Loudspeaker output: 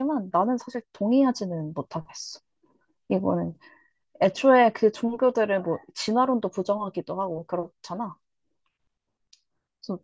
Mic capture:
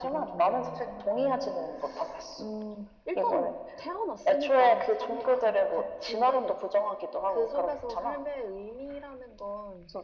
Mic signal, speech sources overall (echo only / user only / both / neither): both